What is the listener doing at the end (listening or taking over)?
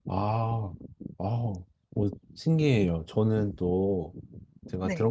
listening